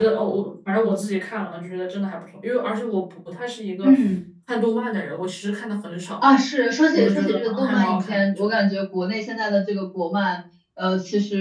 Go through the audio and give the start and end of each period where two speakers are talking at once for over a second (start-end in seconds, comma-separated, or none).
6.9-8.4